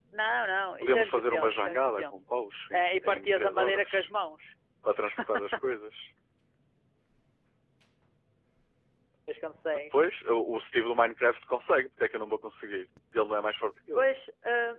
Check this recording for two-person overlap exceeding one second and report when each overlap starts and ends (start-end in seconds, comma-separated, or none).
0.8-2.1, 2.7-4.1